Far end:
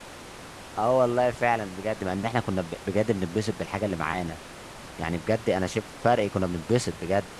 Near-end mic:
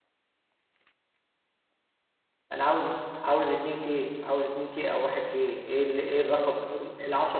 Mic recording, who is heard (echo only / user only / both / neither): user only